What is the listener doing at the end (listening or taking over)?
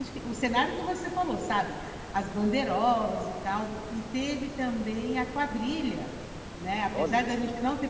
listening